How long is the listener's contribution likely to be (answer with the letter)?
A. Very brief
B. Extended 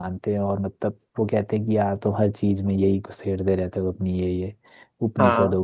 A